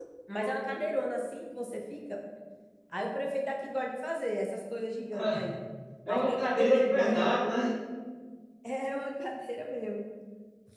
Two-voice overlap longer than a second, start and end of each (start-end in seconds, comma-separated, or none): 6.1-7.3